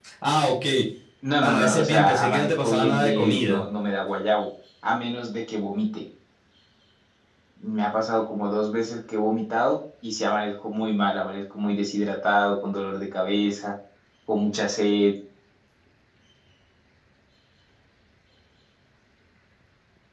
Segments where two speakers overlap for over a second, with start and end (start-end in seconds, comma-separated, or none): 1.4-3.6